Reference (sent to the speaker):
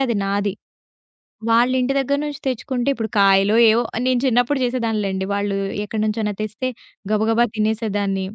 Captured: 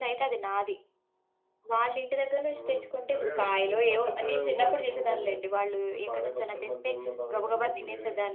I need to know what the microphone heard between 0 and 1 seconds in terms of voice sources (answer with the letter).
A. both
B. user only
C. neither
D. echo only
D